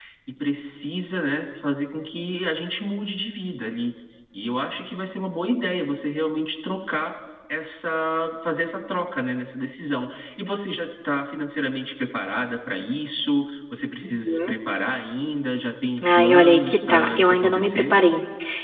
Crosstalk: present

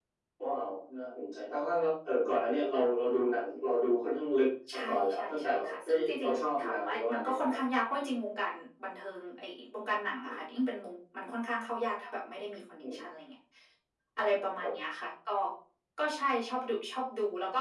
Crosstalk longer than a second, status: present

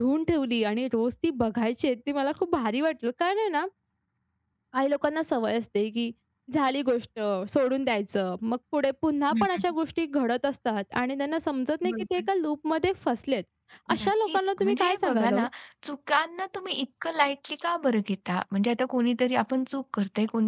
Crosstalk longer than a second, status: present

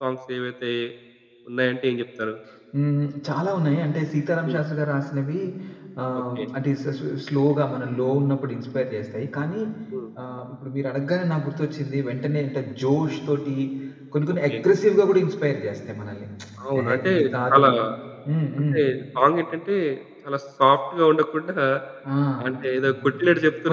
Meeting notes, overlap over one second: none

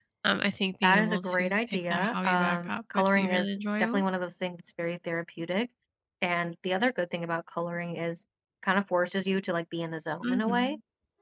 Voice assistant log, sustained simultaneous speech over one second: present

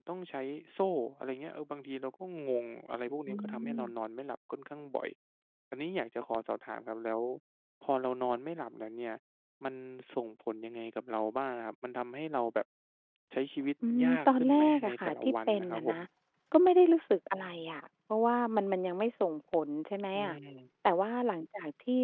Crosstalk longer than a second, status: present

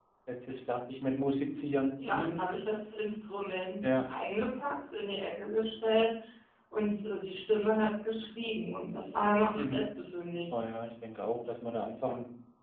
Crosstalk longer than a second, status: none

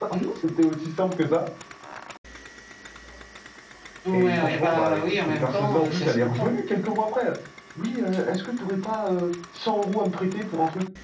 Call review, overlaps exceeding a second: present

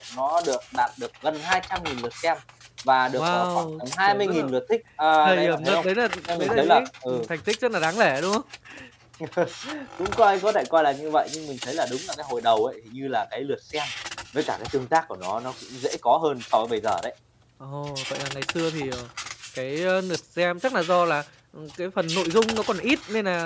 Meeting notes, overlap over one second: present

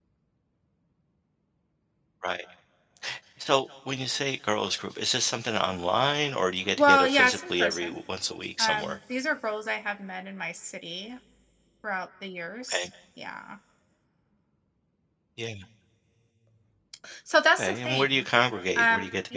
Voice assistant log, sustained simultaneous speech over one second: present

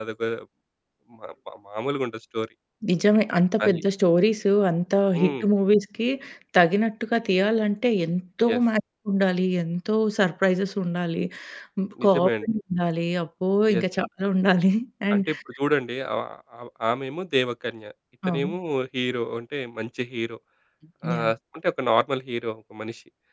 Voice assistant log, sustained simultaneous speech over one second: none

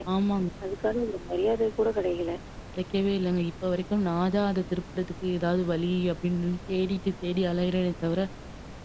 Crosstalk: none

